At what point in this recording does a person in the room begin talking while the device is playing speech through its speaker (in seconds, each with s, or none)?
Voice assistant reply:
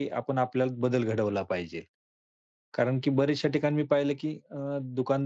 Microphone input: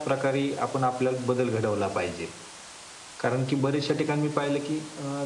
none